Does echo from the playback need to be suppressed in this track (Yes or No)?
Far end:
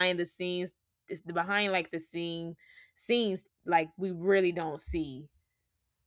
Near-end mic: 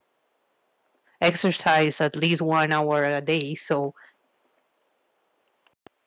No